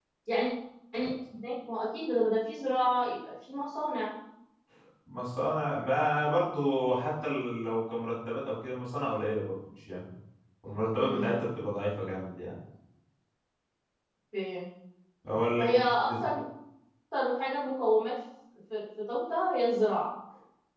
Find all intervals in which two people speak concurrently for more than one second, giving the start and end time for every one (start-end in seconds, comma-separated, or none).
none